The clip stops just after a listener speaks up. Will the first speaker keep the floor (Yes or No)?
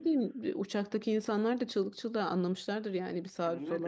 No